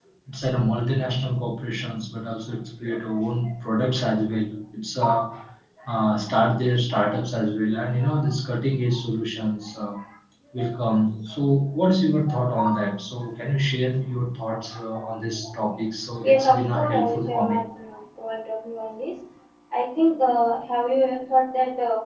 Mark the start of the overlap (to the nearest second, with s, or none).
16 s